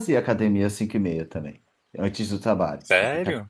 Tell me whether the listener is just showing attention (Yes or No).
No